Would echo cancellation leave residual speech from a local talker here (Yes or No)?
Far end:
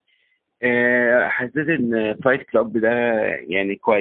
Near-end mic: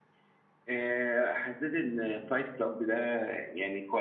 No